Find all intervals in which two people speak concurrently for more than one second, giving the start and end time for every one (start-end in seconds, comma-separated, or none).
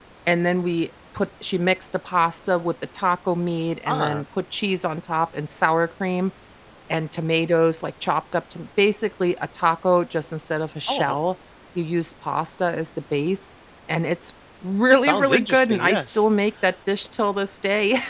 15.0-16.3